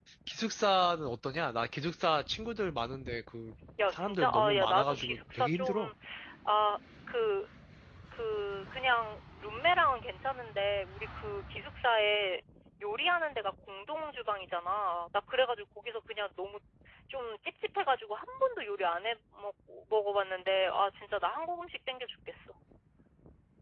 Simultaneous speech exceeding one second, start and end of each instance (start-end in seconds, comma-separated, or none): 3.9-5.9